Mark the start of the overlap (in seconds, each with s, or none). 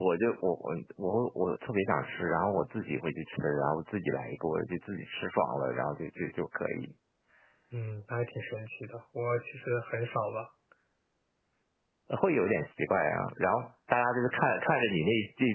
none